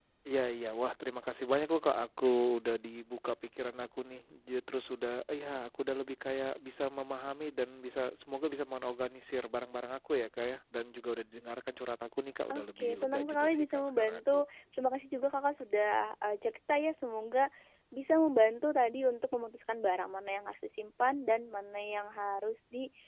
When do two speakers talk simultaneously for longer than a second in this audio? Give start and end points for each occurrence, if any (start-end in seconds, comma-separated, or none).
12.5-14.4